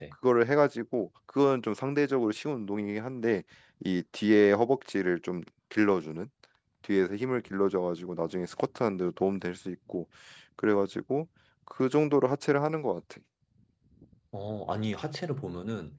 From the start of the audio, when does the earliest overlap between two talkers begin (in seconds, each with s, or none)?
none